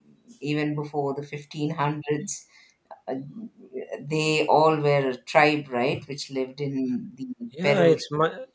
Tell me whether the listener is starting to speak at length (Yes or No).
Yes